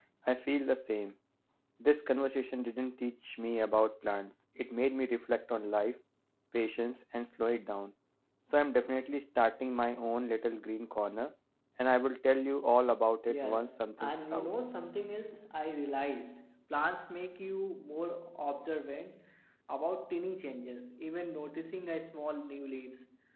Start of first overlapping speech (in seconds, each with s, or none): 13.3 s